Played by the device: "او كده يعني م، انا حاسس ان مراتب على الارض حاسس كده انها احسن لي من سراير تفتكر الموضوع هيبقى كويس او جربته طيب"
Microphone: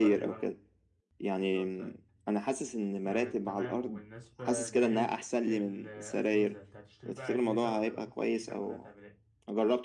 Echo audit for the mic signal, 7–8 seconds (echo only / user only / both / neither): both